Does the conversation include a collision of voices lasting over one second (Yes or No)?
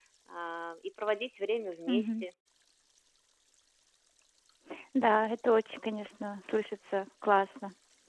No